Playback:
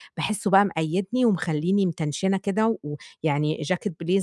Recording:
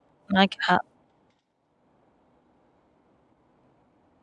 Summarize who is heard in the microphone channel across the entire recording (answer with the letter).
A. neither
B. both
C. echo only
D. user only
D